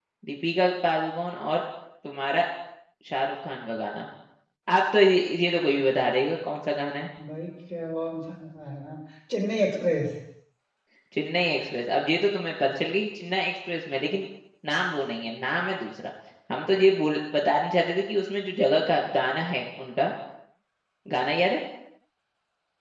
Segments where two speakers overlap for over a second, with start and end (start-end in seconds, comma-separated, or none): none